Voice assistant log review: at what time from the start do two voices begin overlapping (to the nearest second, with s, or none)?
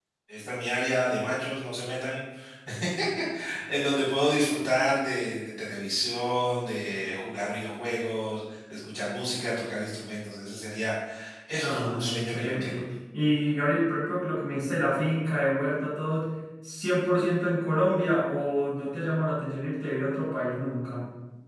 12 s